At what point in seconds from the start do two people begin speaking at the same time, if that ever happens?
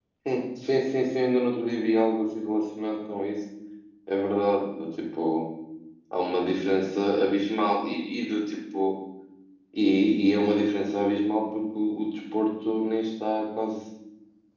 none

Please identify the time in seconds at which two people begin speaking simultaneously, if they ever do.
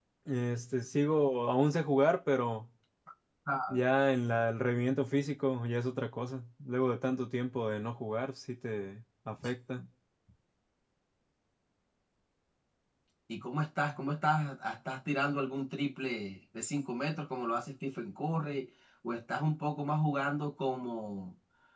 none

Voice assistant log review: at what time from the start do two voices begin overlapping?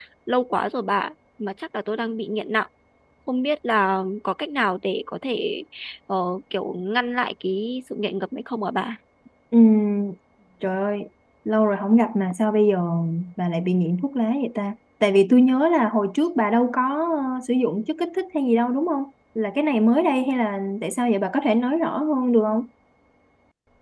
none

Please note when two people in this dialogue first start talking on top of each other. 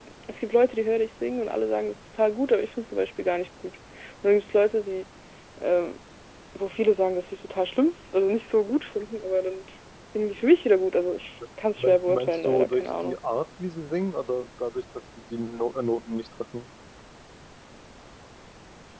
12 s

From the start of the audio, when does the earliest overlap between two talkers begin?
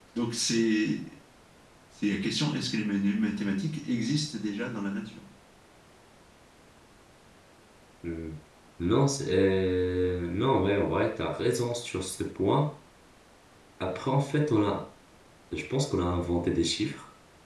none

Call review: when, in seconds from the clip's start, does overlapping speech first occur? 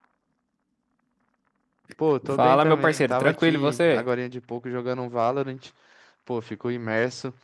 2 s

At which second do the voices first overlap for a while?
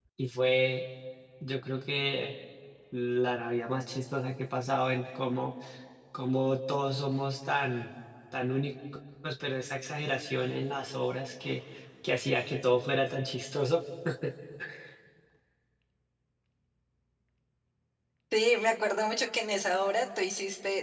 none

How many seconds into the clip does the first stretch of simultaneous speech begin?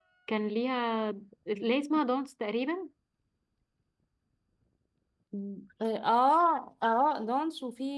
none

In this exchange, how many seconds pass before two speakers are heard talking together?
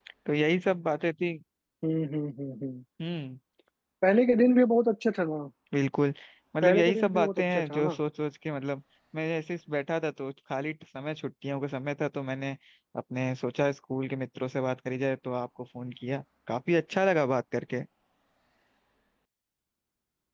7 s

